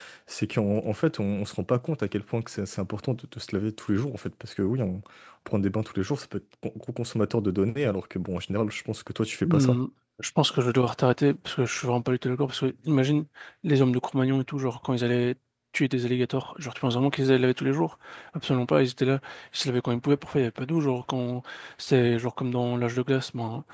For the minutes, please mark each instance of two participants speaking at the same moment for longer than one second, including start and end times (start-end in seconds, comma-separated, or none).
none